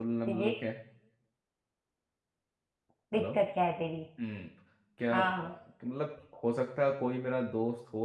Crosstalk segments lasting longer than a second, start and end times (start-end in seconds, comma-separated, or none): none